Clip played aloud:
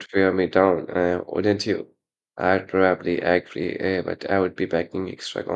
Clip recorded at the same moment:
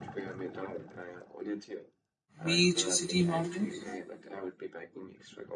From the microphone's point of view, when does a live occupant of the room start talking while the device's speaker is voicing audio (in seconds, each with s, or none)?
2.4 s